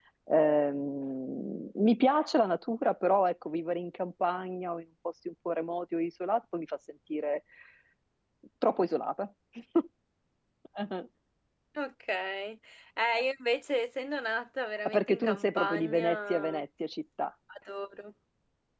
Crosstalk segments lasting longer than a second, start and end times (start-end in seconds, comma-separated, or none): 14.8-16.6